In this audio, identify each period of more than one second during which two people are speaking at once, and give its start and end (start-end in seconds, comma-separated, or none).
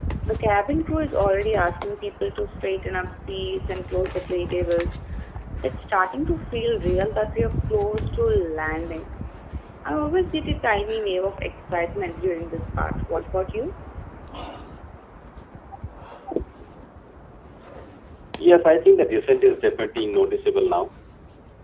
none